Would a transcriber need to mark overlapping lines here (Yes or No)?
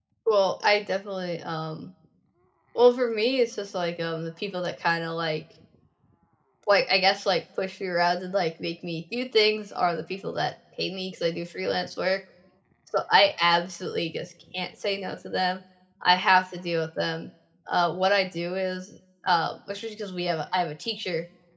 No